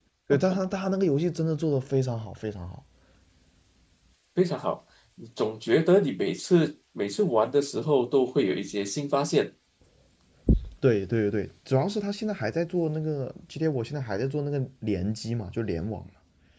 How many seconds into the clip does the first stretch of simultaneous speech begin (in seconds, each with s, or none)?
none